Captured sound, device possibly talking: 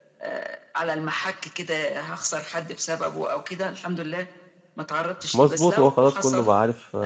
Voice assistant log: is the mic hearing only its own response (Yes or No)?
No